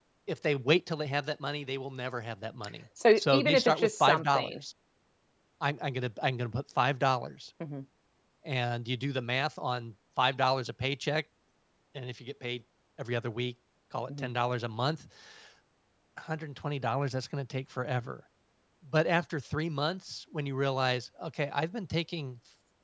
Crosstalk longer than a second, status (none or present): present